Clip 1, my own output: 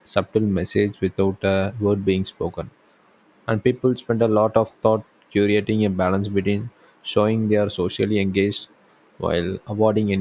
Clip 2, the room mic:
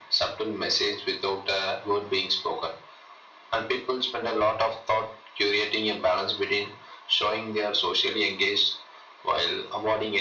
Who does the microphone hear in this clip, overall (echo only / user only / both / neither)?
echo only